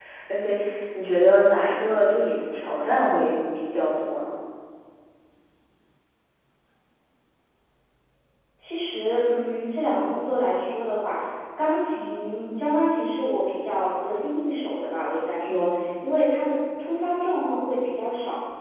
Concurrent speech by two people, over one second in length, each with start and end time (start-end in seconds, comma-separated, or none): none